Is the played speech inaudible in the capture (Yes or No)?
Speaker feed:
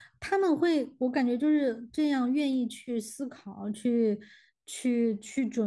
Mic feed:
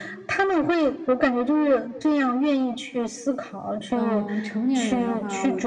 No